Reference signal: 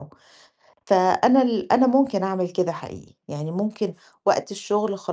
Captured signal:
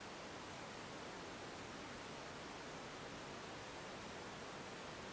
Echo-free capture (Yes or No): Yes